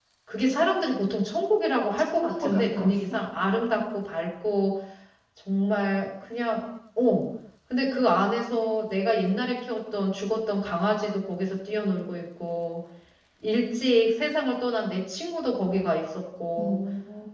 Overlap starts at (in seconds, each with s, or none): 2.0 s